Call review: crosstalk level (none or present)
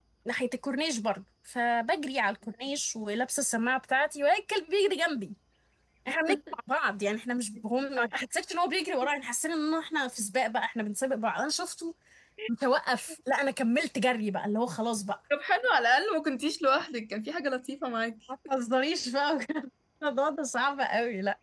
none